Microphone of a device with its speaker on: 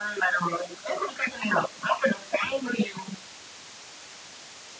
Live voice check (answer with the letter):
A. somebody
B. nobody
B